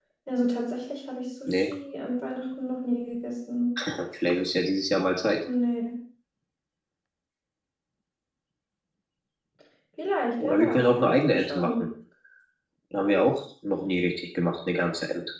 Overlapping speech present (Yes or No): Yes